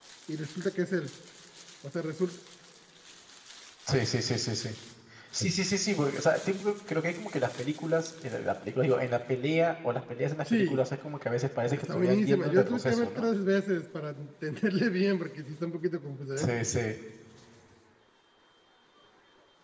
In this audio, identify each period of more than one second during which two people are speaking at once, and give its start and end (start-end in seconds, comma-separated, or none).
11.7-13.2